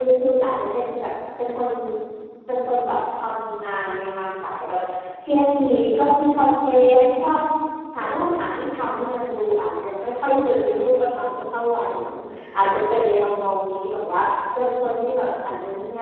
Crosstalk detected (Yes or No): No